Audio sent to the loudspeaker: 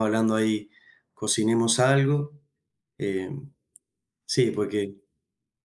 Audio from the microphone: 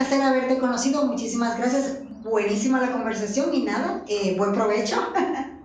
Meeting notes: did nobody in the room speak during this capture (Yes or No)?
No